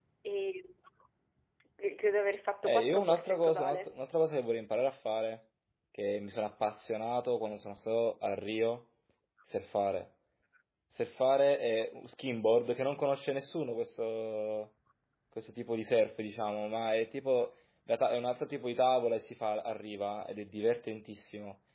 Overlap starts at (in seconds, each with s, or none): 2.6 s